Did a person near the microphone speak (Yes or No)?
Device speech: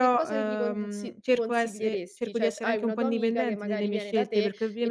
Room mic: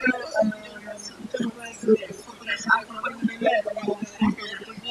No